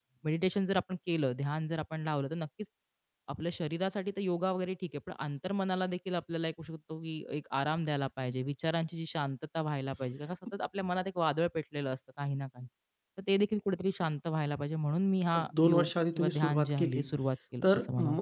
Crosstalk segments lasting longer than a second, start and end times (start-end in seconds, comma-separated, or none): 15.4-17.0